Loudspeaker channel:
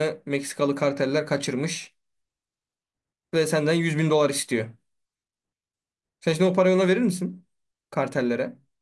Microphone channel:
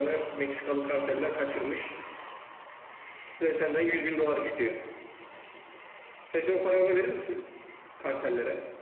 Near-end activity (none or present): none